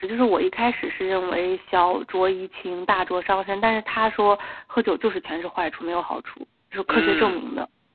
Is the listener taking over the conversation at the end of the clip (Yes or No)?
Yes